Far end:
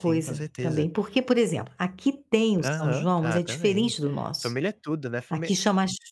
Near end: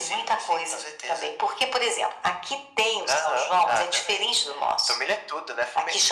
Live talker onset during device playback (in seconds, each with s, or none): none